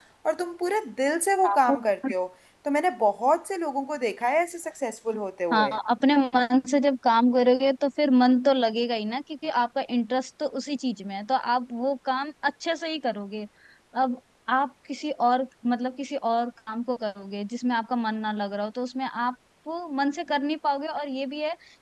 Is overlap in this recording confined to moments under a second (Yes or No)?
Yes